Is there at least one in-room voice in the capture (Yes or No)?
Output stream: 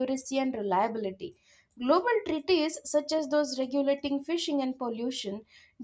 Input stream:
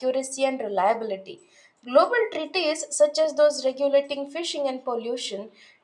No